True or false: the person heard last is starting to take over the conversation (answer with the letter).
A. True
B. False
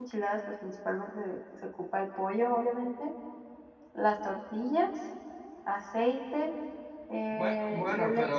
A